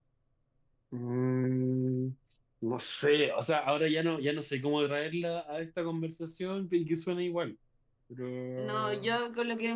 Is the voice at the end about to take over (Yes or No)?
Yes